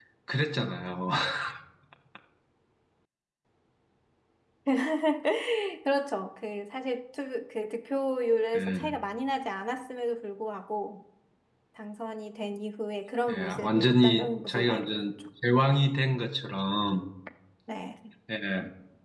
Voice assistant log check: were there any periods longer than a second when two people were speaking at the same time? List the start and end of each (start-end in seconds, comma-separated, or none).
13.3-15.1